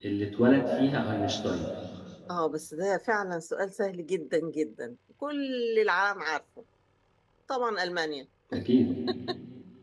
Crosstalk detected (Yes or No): No